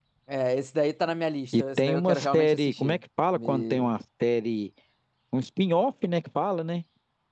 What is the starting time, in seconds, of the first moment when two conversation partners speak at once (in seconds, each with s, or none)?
1.5 s